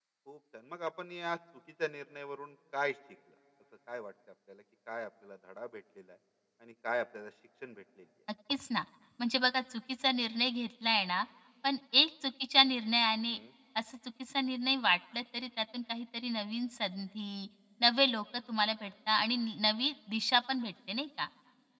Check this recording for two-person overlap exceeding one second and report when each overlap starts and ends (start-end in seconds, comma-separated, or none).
none